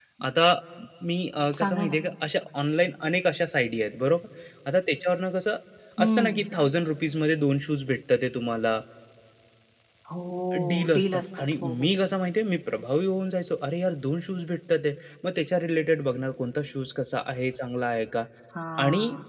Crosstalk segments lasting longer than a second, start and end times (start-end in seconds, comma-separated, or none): 10.7-11.9